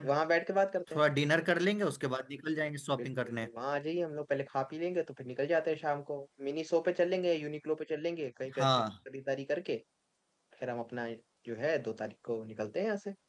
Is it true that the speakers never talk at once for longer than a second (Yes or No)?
Yes